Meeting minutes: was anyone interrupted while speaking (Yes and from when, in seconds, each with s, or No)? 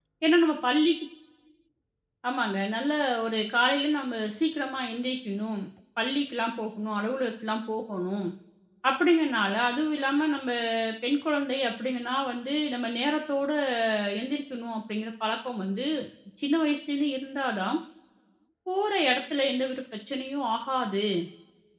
No